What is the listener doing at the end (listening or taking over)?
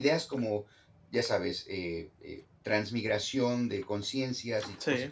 listening